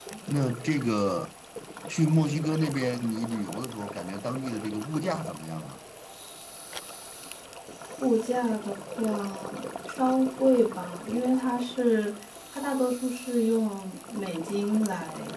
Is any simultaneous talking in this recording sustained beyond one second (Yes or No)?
No